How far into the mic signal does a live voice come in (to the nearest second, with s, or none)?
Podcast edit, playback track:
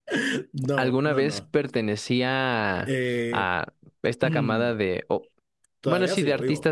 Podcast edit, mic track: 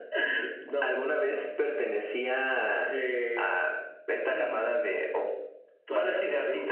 none